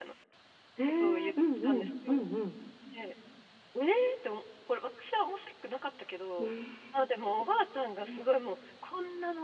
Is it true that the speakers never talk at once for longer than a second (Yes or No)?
No